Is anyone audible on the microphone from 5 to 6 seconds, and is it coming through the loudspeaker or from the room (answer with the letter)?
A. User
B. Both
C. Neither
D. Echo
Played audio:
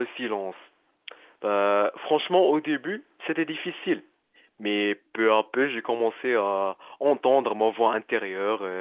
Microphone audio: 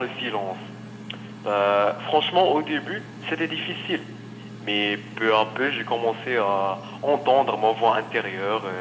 D